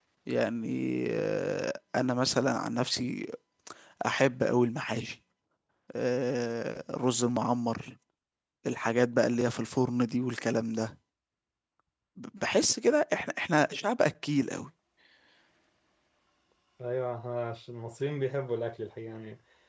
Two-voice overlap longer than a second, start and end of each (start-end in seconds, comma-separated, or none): none